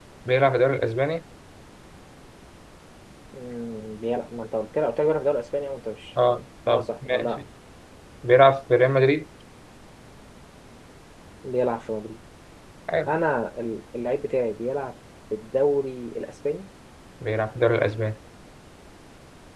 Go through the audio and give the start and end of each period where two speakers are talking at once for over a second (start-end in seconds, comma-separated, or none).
6.2-7.4